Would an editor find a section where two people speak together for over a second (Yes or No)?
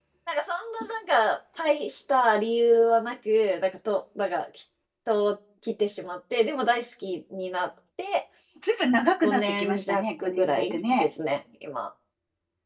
Yes